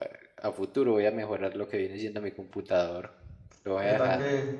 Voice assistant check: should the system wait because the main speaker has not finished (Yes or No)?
No